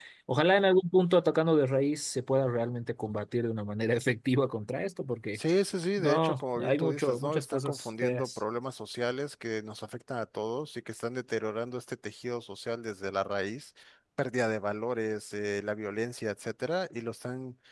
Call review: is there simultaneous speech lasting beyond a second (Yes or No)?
Yes